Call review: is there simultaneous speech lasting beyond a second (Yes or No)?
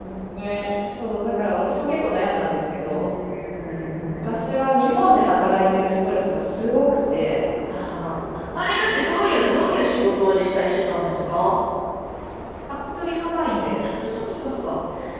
No